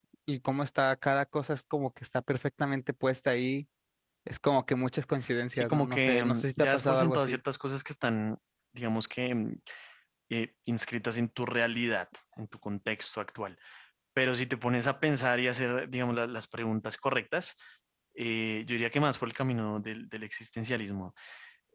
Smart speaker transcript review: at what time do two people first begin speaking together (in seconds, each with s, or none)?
5.5 s